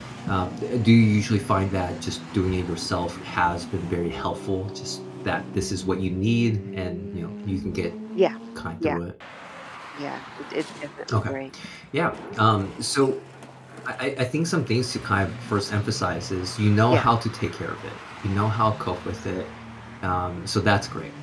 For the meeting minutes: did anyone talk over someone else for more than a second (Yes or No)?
No